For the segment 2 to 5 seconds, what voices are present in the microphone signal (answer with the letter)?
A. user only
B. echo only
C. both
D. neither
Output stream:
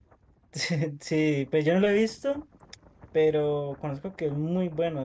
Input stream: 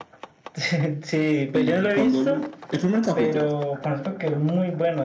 C